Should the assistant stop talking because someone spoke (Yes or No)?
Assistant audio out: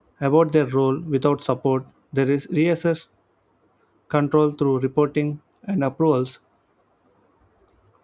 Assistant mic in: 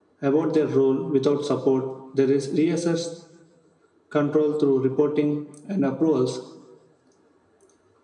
No